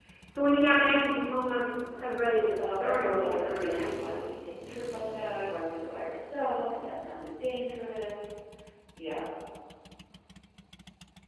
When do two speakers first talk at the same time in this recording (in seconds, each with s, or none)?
2.6 s